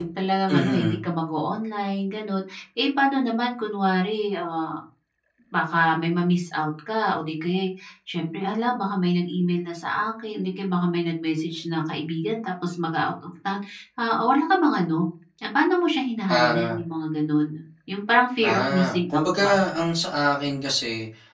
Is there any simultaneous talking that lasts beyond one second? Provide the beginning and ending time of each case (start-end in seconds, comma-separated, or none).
18.4-19.6